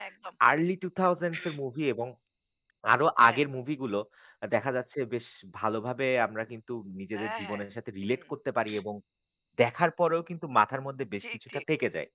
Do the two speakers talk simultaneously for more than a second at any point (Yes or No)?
No